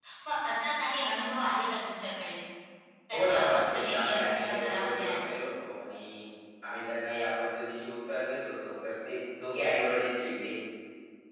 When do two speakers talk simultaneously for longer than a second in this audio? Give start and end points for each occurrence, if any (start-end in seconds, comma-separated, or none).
3.1-5.3